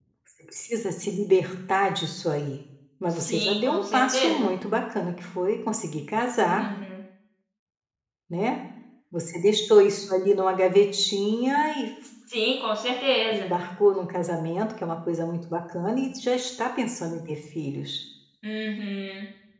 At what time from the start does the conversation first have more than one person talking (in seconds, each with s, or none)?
3.1 s